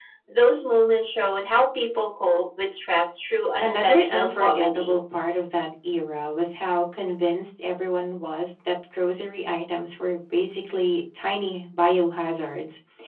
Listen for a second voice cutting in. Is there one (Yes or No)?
Yes